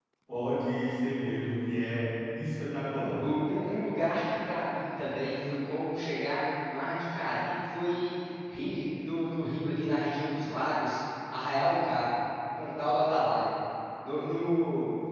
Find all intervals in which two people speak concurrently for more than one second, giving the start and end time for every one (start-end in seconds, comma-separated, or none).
none